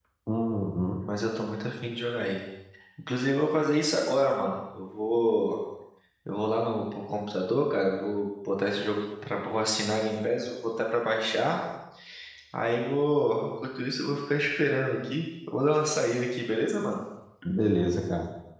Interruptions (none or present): none